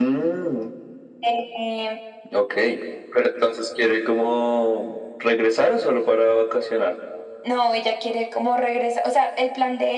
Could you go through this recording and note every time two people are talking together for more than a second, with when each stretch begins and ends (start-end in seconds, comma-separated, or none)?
none